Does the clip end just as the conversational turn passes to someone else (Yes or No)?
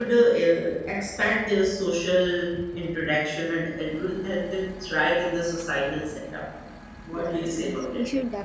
Yes